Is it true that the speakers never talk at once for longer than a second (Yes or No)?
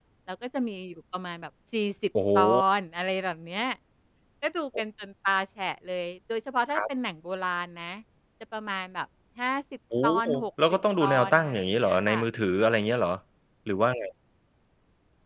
No